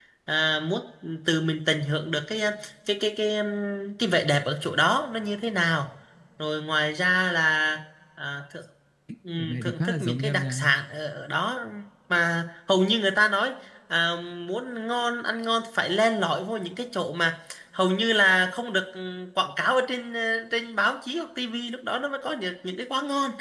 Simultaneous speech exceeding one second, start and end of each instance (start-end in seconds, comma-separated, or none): 9.3-10.7